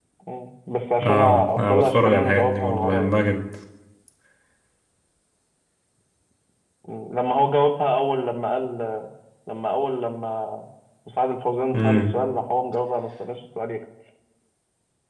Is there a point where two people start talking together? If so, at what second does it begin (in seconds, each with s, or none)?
1.1 s